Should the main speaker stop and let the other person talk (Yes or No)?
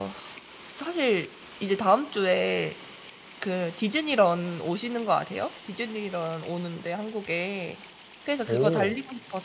No